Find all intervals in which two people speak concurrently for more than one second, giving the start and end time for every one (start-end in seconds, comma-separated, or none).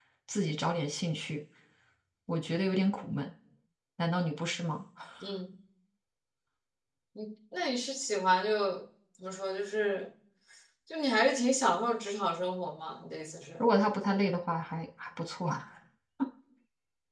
none